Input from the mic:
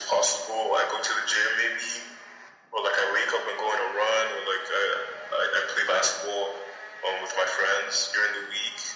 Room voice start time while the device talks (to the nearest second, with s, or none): none